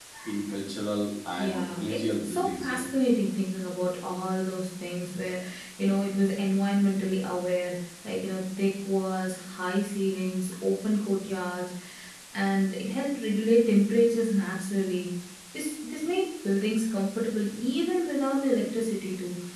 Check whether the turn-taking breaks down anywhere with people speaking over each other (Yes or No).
Yes